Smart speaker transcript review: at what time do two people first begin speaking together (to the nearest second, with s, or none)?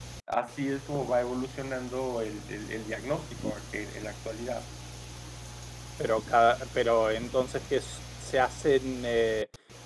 none